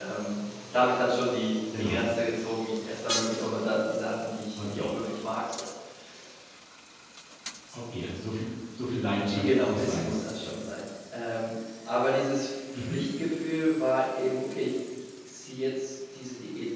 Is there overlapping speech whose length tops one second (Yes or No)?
Yes